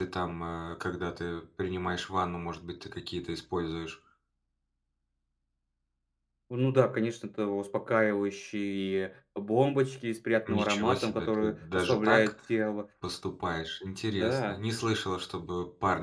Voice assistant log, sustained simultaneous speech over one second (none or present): present